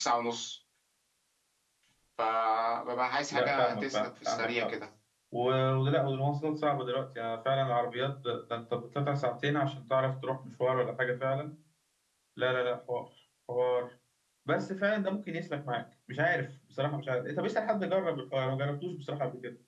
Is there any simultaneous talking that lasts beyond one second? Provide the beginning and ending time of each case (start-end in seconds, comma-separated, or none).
3.3-4.7